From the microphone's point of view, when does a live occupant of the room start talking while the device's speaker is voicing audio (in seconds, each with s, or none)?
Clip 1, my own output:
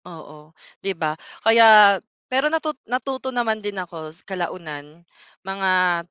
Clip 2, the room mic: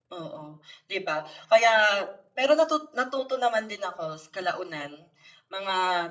none